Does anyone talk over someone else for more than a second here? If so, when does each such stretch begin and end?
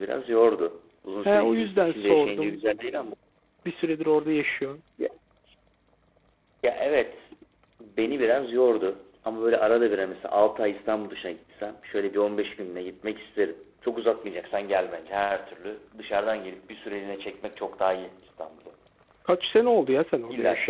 1.2-2.6

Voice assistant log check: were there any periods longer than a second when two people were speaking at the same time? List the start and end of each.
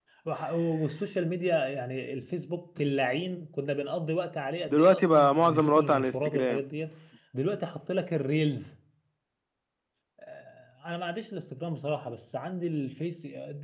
4.7-6.6

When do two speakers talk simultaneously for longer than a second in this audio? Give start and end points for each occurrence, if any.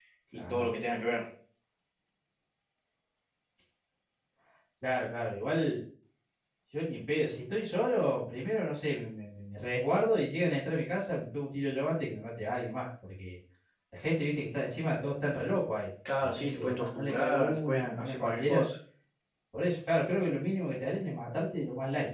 16.2-18.6

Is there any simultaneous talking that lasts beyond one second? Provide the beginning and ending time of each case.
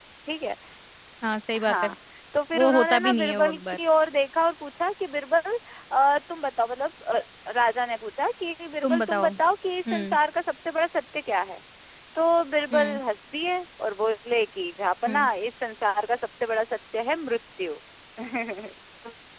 2.5-3.8

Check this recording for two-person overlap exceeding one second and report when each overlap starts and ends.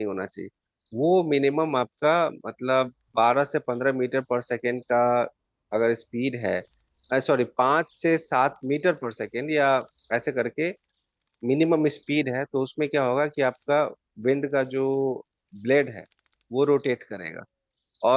none

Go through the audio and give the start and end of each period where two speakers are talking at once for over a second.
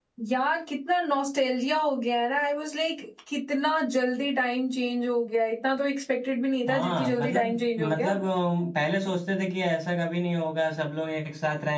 6.7-8.2

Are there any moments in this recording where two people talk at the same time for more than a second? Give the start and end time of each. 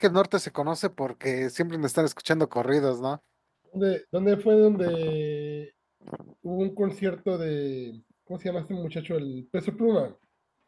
none

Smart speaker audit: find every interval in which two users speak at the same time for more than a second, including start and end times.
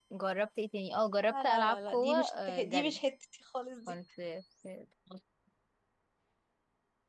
1.3-3.0

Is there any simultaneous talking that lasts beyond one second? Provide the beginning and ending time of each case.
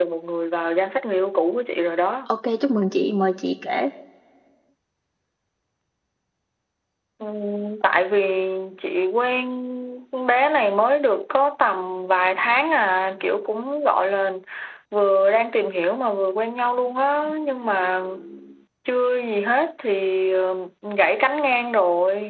none

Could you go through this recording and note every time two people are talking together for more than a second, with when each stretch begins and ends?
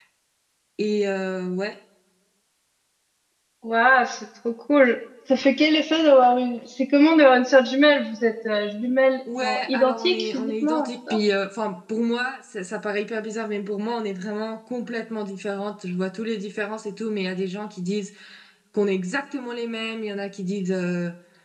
9.4-11.2

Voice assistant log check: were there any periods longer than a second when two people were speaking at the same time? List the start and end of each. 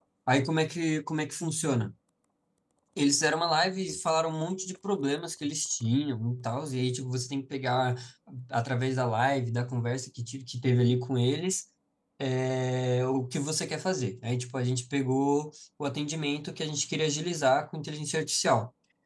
none

